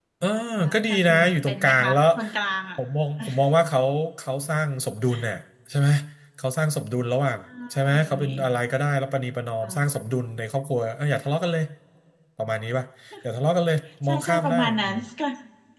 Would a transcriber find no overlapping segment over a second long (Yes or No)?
No